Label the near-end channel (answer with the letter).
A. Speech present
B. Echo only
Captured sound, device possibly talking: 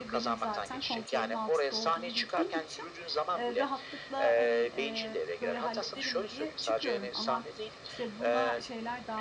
A